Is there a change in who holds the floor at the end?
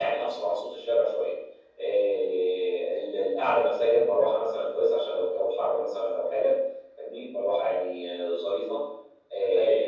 No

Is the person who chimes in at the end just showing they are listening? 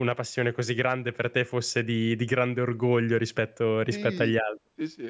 No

